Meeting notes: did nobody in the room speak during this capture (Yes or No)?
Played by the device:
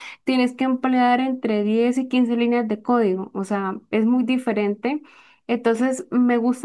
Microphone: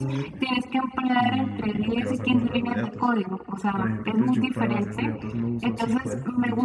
No